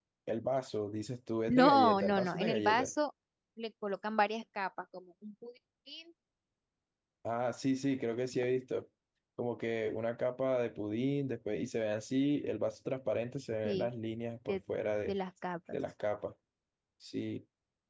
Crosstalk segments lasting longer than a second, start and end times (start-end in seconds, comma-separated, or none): 1.5-2.9